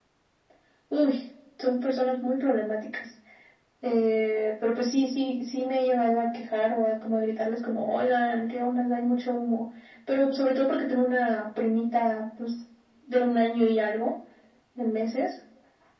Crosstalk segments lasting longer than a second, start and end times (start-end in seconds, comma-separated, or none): none